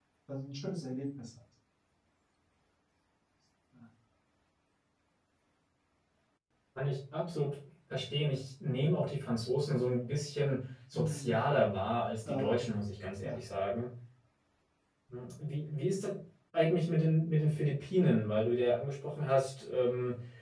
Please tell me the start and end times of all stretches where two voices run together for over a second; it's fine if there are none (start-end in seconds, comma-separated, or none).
none